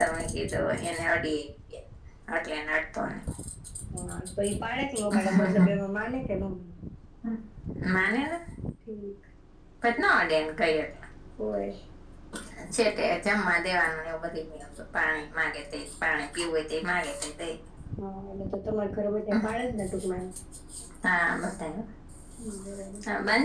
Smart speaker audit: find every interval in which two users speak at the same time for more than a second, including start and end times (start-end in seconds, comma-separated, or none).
none